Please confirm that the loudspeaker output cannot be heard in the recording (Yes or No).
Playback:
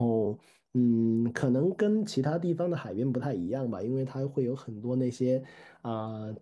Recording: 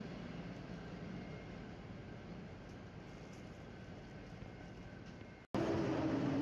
Yes